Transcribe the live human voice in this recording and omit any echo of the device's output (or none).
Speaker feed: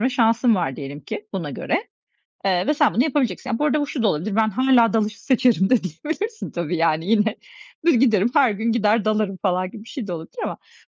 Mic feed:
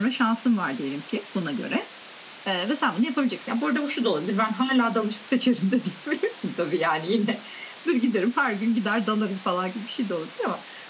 none